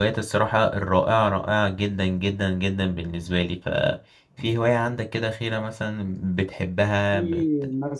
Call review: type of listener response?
taking over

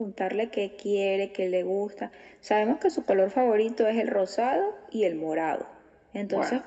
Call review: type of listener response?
listening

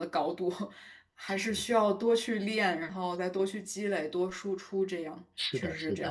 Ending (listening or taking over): taking over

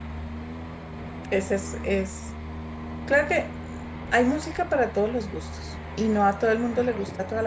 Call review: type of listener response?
listening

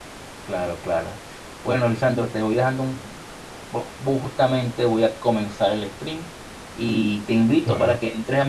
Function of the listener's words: listening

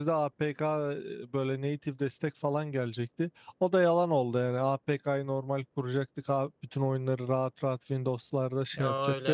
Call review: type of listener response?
taking over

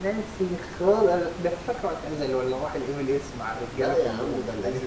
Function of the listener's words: taking over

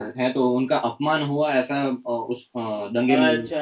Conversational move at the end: taking over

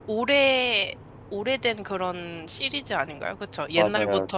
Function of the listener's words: taking over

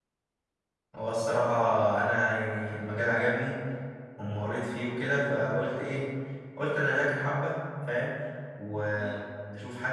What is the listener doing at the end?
listening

